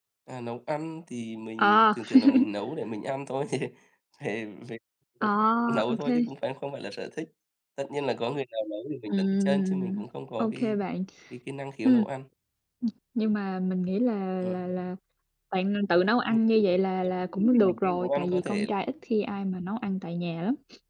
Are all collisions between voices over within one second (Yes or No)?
No